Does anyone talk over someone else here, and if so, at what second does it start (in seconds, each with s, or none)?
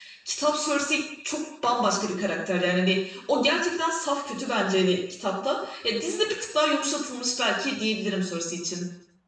none